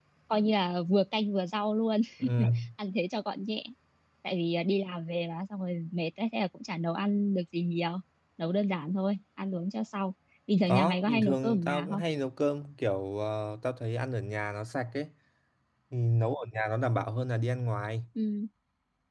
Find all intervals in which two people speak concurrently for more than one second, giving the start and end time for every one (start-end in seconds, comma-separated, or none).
10.6-12.0